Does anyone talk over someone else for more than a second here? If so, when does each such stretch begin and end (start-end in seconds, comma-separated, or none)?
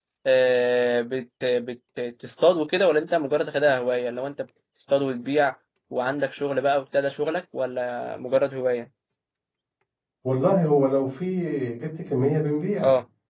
none